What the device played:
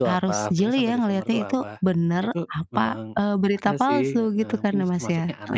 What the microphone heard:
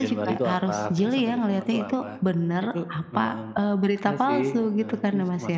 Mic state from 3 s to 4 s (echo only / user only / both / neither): echo only